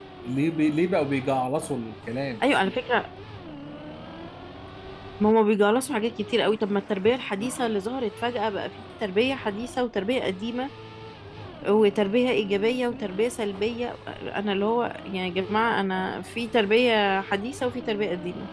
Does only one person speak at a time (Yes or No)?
Yes